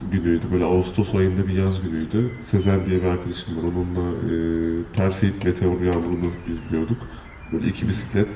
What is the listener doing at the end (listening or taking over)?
listening